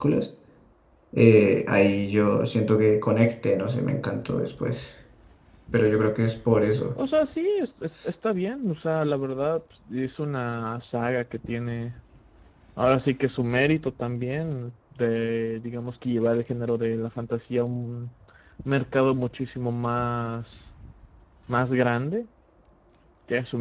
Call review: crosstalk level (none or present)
none